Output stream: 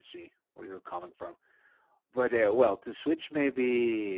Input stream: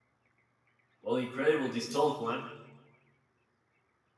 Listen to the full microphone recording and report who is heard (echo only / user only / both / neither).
user only